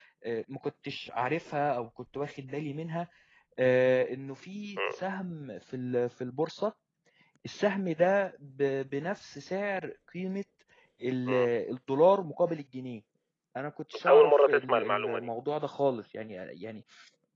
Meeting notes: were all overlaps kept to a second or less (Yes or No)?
No